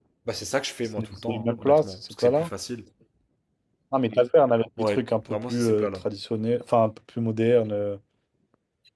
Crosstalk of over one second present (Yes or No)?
Yes